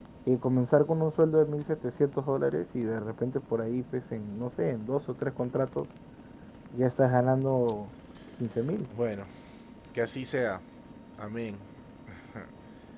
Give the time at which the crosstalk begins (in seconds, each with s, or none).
none